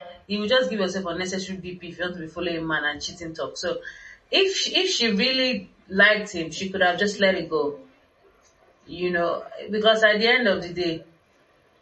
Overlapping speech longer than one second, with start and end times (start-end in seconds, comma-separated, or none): none